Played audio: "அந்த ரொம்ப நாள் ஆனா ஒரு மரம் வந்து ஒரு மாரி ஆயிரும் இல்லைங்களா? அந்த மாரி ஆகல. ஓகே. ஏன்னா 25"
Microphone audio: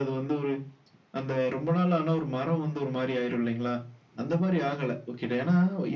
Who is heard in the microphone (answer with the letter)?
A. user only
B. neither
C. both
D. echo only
D